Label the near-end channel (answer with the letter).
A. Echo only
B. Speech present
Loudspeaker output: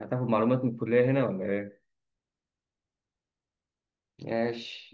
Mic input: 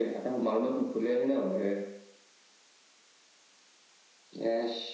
A